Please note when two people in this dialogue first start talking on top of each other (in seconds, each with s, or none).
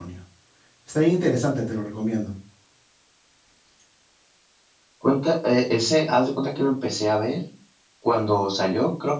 none